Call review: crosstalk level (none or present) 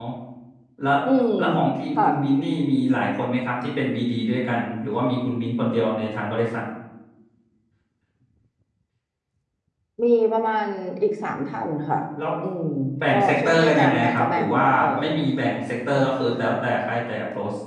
present